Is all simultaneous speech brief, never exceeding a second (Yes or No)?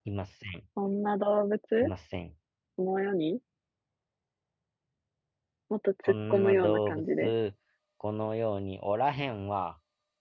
No